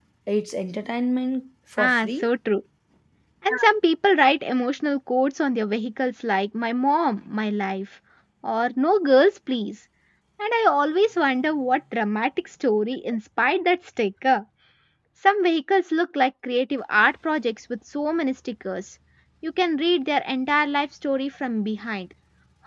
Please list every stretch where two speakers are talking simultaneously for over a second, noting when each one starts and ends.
none

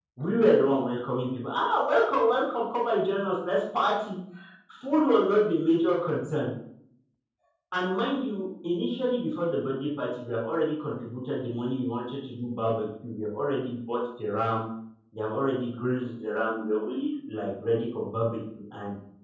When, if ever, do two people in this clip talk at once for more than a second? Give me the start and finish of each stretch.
none

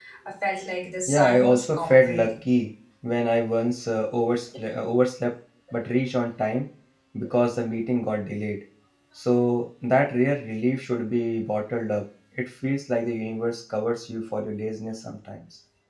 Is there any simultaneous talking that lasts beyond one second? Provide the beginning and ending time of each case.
1.1-2.3

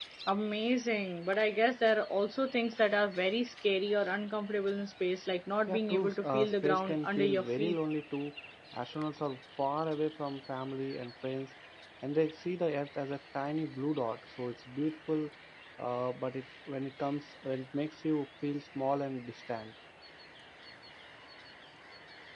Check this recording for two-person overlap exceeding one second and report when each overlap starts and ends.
5.7-7.8

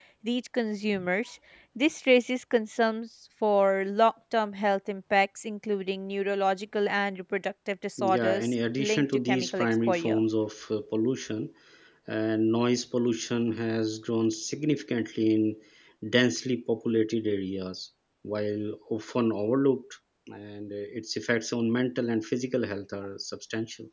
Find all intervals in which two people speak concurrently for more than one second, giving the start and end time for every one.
8.1-10.2

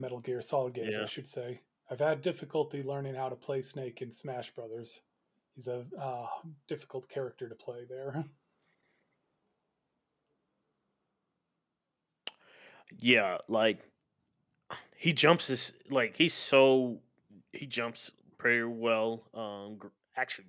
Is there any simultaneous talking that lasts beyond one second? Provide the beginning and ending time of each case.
none

